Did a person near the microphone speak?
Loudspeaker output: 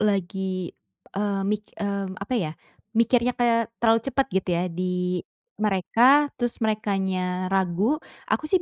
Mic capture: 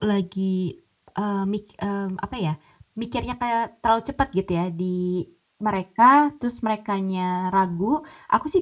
No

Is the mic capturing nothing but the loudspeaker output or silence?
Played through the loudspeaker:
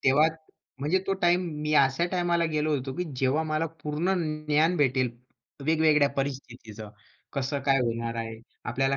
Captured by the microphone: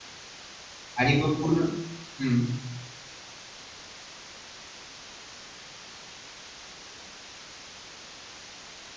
No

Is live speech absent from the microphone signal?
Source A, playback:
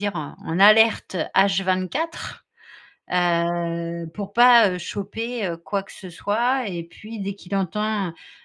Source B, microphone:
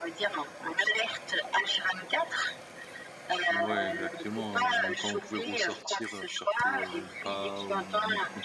No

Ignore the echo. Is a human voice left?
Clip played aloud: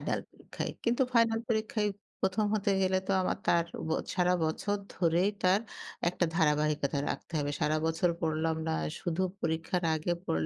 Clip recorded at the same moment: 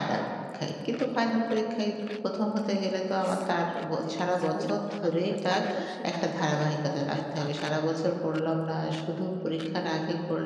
Yes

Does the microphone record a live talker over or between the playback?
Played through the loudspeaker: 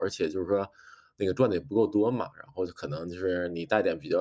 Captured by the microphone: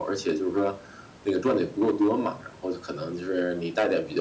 No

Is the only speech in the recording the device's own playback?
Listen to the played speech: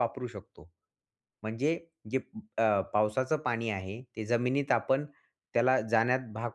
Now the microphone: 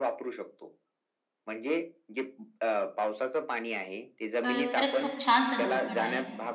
No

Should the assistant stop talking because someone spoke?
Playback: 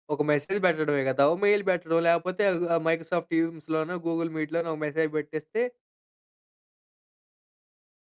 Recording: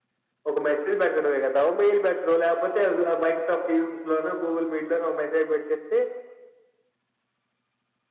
No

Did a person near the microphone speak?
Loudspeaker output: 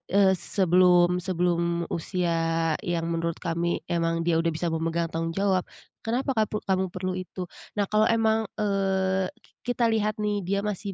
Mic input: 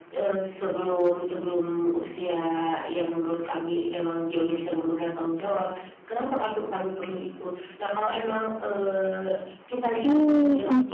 Yes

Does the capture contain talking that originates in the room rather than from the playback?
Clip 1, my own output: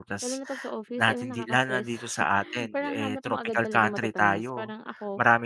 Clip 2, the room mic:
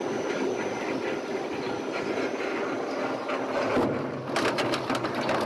No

